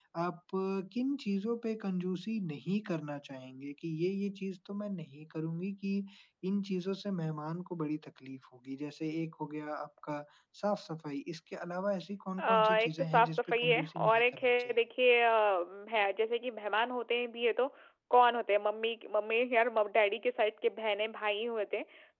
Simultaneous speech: Yes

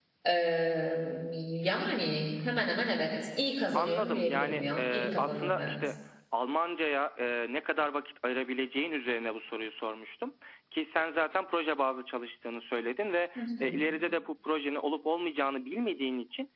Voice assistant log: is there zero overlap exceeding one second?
No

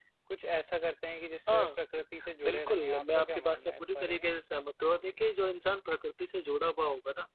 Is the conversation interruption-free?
No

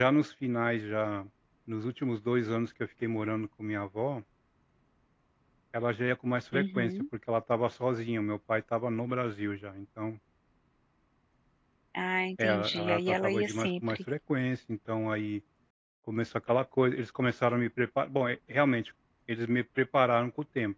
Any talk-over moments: Yes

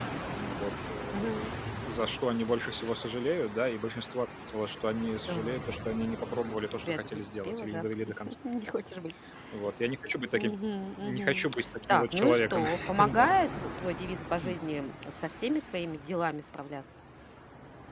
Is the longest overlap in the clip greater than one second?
Yes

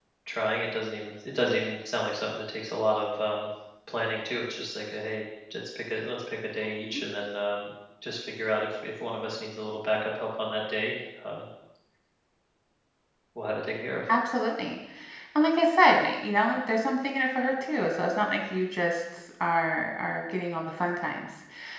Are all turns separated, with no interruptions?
Yes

